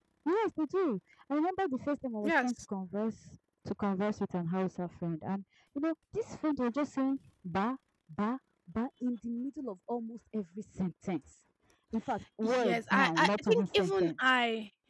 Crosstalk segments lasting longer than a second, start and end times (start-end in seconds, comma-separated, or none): 12.4-14.1